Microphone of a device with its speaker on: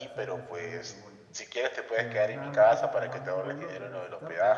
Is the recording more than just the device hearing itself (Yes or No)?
Yes